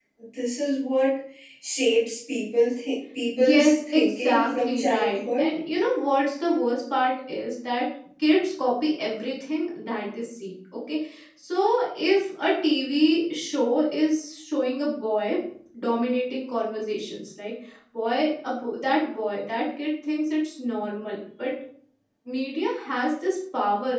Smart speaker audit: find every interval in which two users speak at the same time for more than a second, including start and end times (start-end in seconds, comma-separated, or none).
3.3-5.5